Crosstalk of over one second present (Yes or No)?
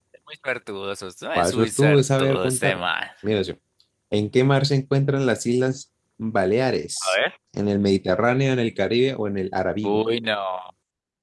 Yes